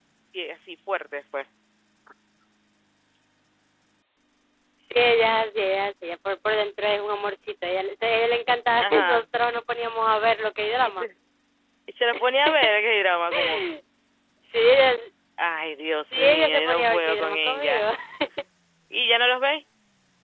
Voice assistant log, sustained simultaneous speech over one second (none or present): present